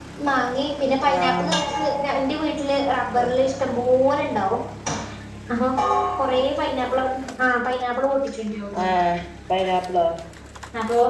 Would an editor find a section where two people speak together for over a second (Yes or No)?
No